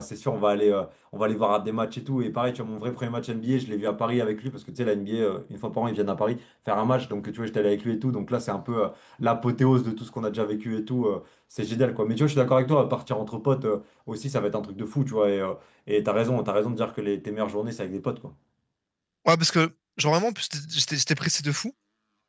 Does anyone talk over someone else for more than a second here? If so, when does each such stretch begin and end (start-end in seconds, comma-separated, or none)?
none